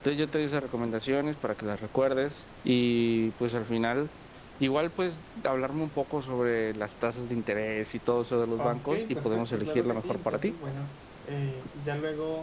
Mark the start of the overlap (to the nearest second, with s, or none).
9 s